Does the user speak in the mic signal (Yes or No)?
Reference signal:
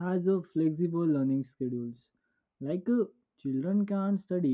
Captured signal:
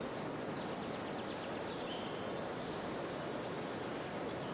No